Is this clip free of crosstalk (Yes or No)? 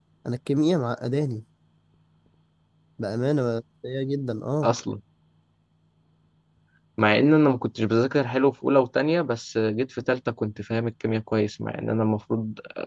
Yes